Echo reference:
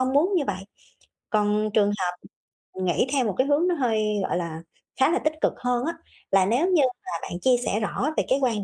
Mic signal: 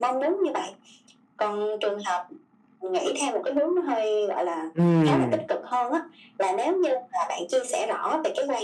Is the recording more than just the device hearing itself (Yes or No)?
Yes